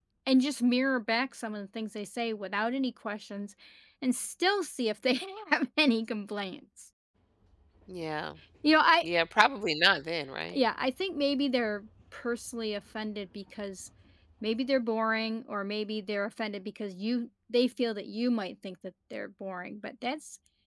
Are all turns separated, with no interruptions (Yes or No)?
Yes